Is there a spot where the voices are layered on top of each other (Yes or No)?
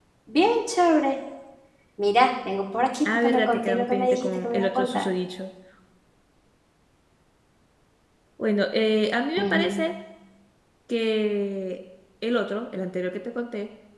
Yes